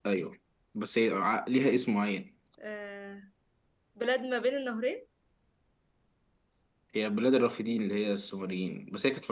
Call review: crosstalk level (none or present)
none